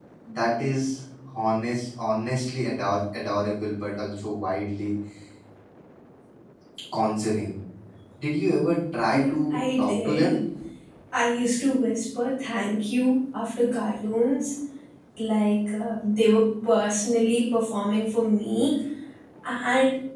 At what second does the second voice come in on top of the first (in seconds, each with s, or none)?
9.1 s